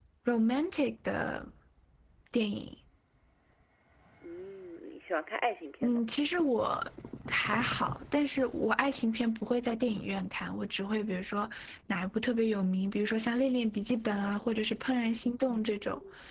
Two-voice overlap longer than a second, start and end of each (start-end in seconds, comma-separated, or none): none